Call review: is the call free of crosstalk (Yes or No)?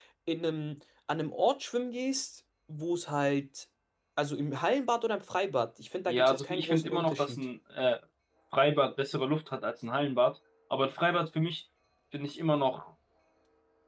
No